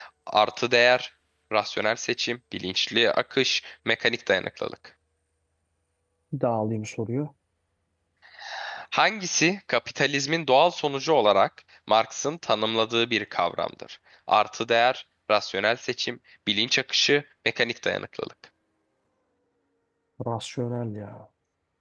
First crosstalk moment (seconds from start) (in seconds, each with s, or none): none